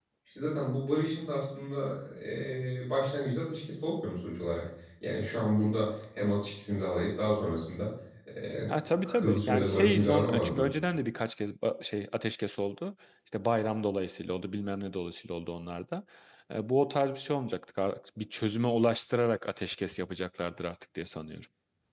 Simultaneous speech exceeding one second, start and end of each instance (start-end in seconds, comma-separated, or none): 8.7-10.7